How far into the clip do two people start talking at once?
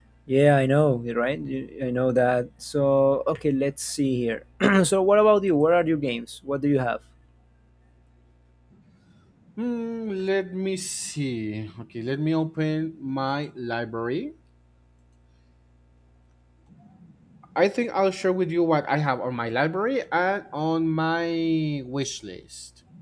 none

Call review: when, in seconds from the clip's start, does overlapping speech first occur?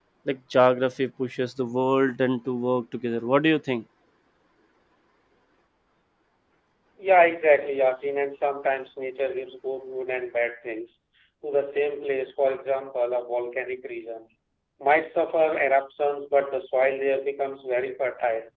none

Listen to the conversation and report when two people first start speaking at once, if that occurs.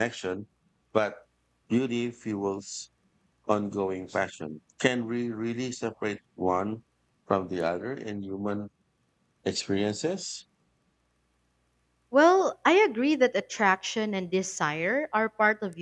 none

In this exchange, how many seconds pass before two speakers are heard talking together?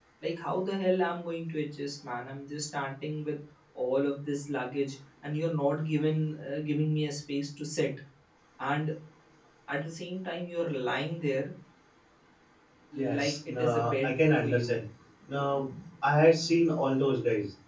13 s

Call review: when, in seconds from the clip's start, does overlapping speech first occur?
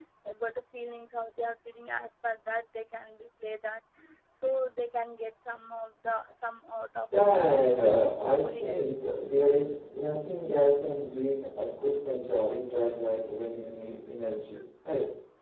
7 s

